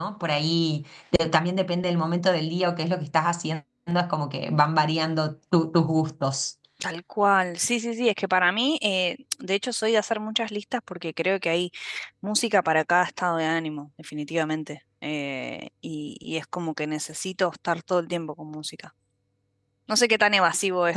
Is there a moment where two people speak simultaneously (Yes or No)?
No